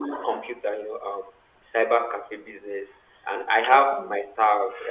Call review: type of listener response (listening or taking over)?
listening